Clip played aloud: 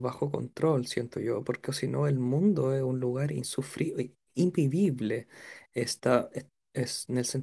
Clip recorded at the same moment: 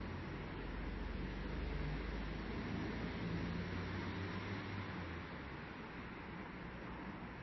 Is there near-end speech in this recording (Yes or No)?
No